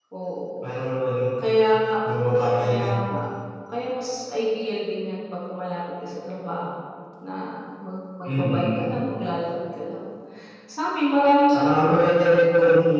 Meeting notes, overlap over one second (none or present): none